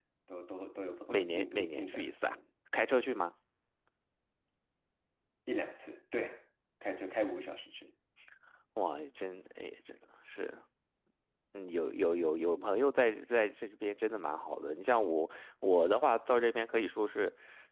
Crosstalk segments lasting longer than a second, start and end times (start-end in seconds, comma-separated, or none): 1.1-2.3